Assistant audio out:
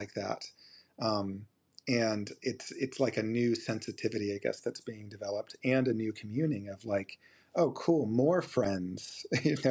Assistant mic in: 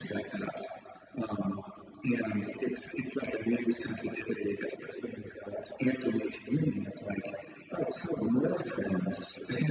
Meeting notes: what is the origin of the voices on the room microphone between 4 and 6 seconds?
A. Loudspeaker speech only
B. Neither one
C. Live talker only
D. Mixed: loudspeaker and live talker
A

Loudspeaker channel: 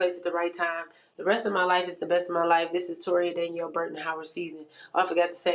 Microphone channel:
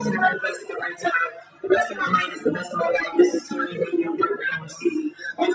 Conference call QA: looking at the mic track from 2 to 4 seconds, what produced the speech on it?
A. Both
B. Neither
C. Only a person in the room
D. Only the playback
D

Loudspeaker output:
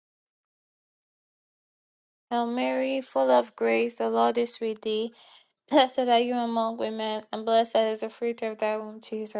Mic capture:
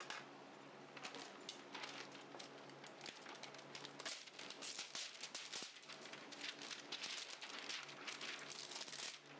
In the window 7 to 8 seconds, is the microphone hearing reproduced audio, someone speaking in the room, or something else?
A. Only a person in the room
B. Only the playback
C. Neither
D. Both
C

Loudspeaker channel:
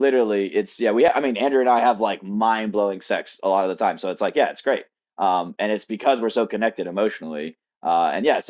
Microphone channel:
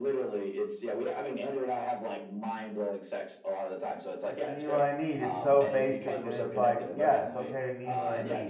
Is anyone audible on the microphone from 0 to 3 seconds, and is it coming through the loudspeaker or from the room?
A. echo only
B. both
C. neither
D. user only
A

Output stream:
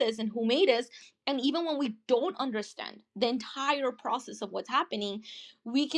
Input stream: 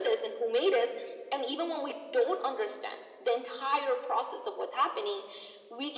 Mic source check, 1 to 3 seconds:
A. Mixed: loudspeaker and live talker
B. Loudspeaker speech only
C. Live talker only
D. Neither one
B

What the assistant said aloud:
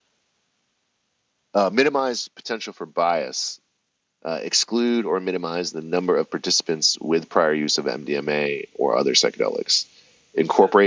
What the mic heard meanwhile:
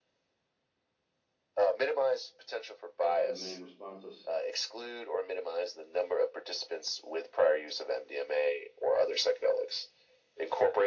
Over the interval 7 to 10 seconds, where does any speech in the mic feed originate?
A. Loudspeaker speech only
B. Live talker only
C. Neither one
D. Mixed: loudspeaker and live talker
A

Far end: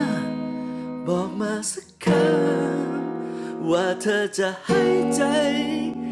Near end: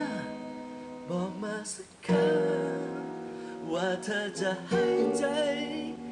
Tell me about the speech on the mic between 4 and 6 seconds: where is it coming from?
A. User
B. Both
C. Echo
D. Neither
B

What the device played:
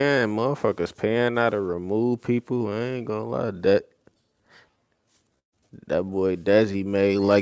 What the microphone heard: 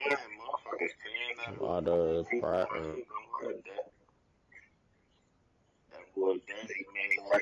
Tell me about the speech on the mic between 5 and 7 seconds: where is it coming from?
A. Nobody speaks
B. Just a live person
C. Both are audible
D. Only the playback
D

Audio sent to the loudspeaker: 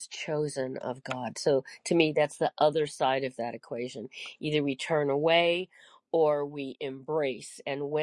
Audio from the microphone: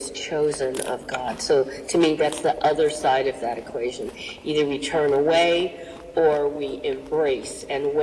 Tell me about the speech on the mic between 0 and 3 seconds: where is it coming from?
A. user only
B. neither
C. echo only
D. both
C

